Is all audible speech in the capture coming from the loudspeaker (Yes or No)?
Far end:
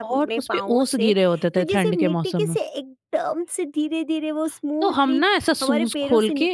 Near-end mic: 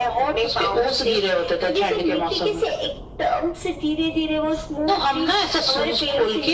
Yes